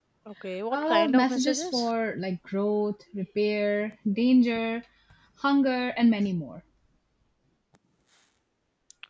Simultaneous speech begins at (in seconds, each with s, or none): 0.7 s